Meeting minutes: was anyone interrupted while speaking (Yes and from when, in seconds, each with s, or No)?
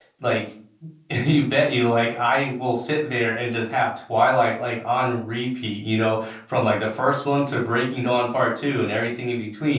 No